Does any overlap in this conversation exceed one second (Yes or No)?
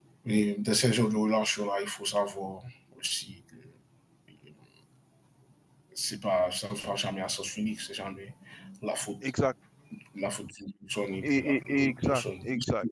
Yes